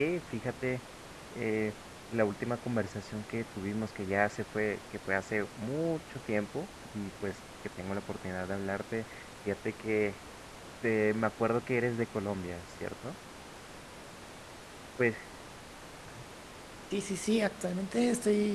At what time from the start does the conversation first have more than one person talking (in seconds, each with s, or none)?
none